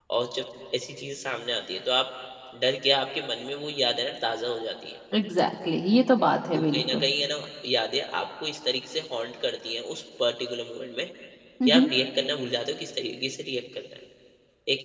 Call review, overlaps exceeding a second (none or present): none